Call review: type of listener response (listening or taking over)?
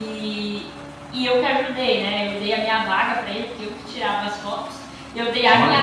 listening